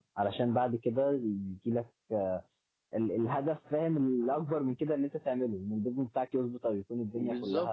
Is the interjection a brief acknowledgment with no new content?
No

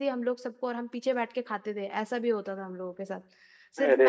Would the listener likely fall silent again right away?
Yes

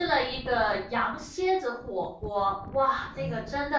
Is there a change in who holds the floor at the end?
No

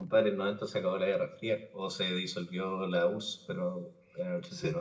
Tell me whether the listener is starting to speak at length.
Yes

